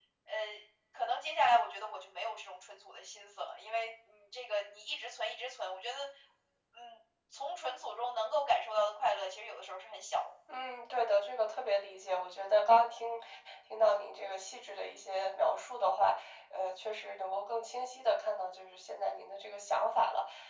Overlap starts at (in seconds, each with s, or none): none